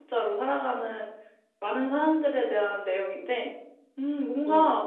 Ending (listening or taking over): listening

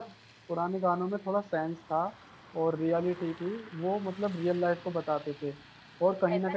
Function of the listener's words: taking over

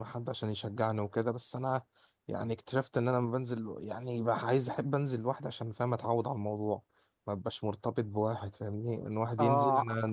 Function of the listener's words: taking over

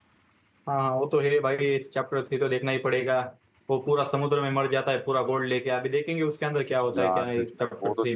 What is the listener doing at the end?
taking over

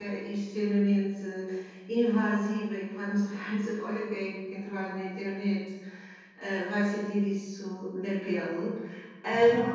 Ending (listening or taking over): listening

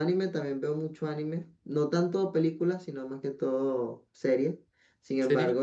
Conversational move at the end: listening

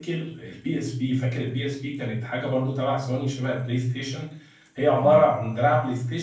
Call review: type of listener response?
listening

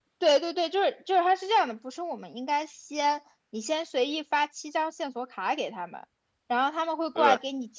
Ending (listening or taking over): listening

